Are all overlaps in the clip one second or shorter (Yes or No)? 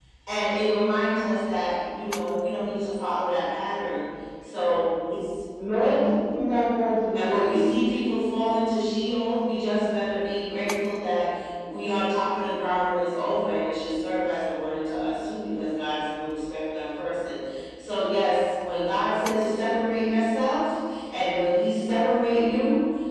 Yes